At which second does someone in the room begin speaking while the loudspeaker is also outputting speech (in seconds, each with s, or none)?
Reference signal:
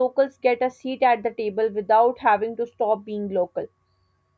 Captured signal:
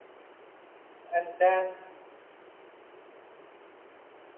1.1 s